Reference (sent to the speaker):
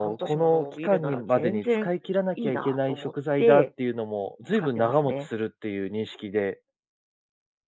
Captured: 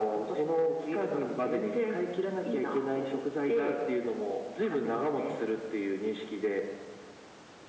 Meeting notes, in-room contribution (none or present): none